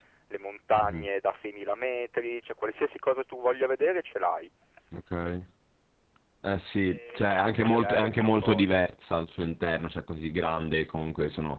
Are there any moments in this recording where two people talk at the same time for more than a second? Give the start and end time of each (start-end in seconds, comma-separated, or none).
6.9-8.7